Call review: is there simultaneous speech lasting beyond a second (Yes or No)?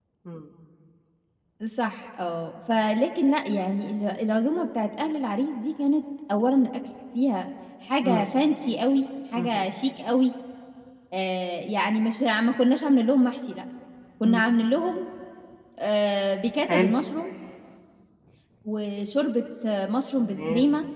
No